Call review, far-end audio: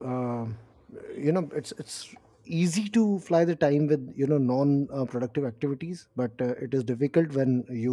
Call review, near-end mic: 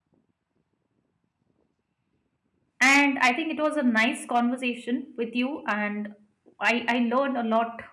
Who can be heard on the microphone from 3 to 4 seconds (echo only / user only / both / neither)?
user only